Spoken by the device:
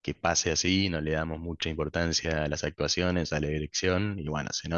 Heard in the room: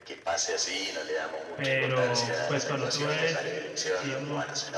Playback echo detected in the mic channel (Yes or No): Yes